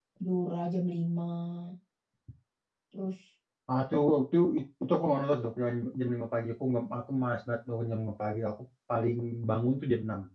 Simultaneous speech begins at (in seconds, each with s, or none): none